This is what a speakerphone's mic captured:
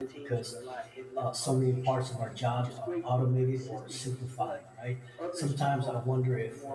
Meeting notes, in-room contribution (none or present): present